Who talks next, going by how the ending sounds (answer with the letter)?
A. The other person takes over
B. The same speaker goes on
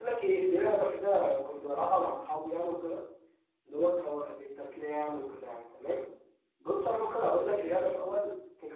B